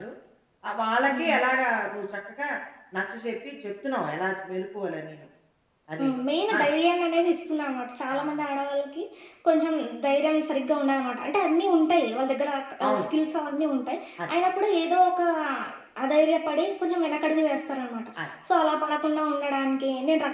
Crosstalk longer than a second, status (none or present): none